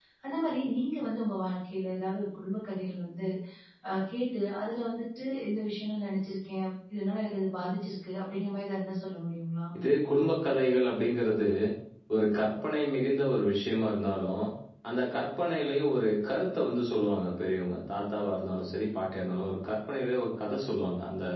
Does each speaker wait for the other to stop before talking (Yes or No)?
Yes